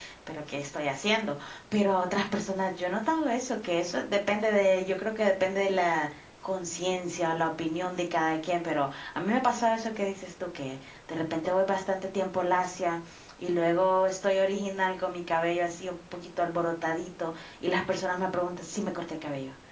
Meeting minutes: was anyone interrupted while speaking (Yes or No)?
No